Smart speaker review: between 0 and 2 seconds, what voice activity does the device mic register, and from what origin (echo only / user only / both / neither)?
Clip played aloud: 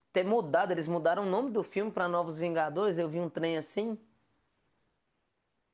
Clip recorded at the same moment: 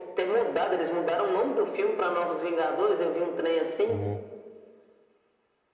echo only